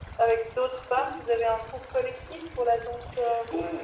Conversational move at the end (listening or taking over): taking over